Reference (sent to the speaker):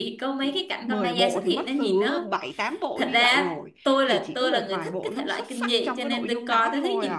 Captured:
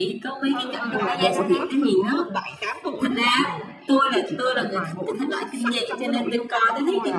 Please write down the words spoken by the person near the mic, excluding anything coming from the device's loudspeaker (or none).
ừ ừ đó đó đó đó